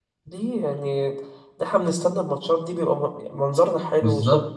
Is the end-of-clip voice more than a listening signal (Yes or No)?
Yes